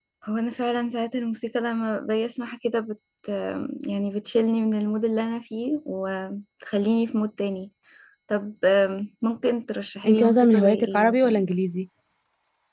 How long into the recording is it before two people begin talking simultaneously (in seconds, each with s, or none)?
10.0 s